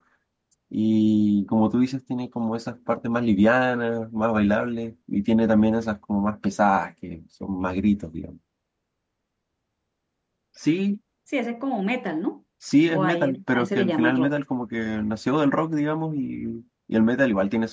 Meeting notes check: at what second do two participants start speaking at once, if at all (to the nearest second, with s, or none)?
13 s